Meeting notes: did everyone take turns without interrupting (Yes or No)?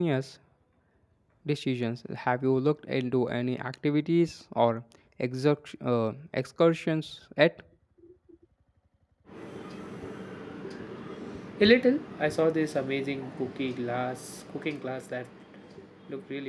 Yes